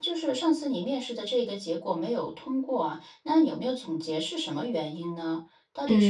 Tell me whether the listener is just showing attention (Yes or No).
No